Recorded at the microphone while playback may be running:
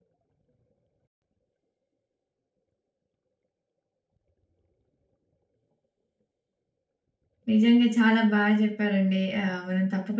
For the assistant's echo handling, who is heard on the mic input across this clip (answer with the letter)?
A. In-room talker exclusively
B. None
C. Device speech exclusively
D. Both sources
A